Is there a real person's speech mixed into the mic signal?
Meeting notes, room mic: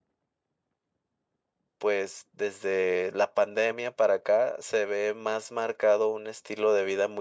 Yes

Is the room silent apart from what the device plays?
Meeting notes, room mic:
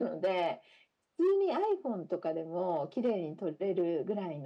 Yes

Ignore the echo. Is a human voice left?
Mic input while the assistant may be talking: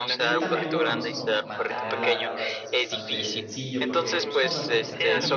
Yes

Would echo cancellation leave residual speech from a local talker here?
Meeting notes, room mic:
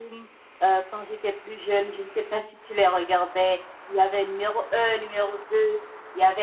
No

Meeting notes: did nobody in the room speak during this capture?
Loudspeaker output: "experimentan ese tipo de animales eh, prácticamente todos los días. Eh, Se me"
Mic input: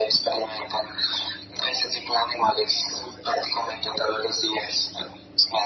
Yes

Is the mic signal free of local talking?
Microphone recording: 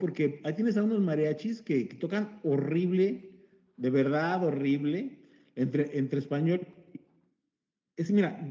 Yes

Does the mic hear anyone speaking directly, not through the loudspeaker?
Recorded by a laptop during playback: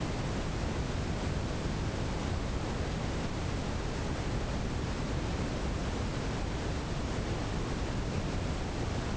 No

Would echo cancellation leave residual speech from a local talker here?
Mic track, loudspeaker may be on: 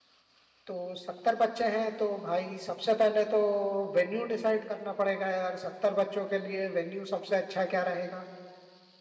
Yes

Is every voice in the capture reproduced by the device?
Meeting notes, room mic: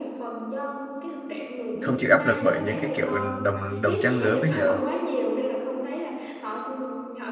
No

